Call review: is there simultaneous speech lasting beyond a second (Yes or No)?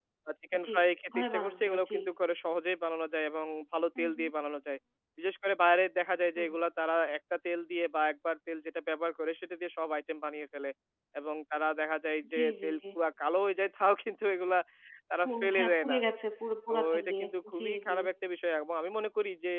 Yes